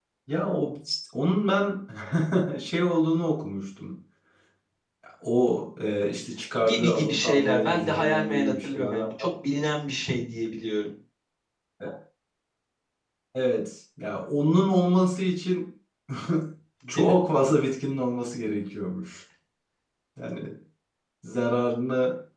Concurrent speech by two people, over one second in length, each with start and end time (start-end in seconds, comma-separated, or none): 6.6-9.0